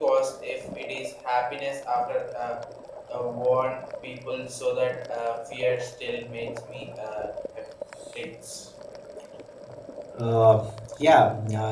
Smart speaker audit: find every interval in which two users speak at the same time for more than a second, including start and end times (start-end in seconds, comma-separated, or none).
none